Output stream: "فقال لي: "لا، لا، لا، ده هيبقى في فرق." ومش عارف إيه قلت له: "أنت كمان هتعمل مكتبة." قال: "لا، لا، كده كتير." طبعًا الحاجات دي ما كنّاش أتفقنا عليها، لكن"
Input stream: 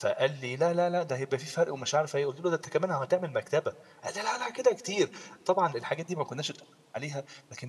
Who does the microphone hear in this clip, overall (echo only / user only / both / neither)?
echo only